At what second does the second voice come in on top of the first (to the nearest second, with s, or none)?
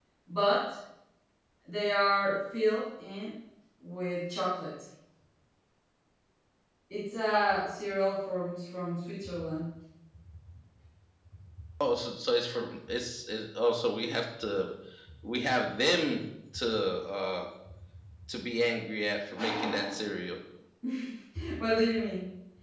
none